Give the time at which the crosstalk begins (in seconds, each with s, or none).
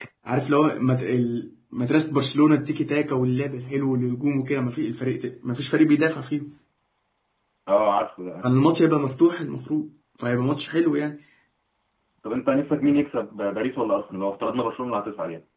none